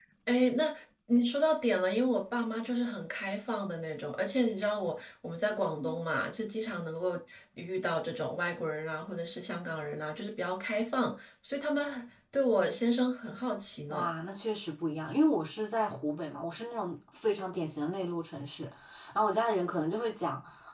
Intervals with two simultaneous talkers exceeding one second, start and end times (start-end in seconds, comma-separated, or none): none